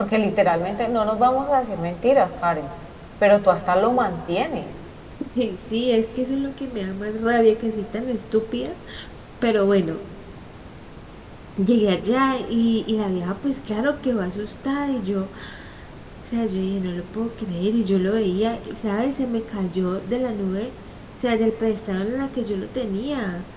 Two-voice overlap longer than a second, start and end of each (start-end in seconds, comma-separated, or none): none